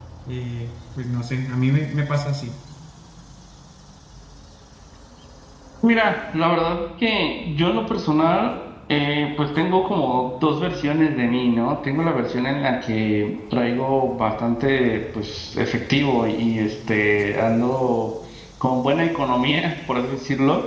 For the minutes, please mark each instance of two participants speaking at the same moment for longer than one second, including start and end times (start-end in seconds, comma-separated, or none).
none